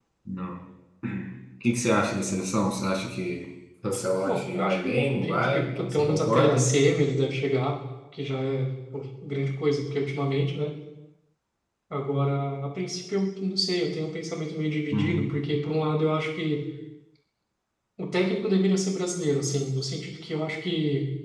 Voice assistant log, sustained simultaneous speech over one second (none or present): present